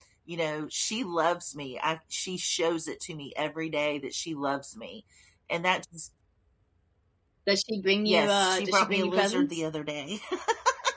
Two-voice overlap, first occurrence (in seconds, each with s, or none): 8.1 s